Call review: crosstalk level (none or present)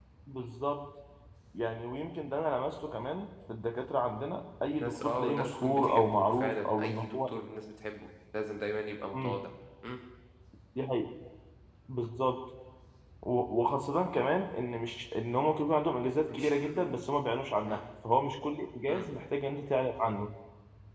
present